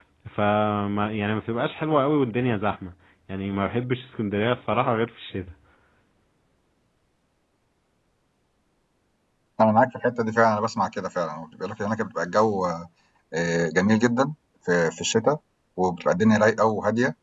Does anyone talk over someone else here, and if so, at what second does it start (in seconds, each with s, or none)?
none